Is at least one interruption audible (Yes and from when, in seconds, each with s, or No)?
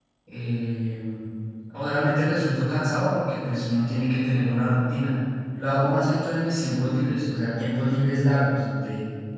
No